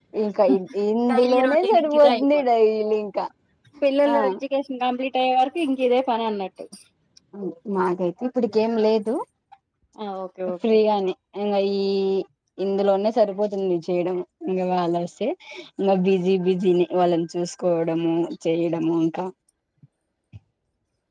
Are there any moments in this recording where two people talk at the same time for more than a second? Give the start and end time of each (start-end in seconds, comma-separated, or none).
1.1-2.4